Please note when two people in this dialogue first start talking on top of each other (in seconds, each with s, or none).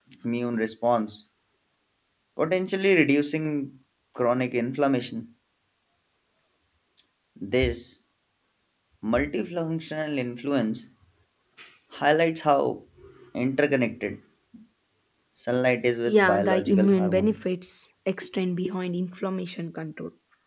16.1 s